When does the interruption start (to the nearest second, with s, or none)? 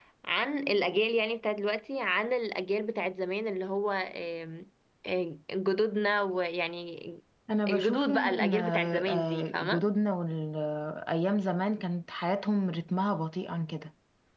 8 s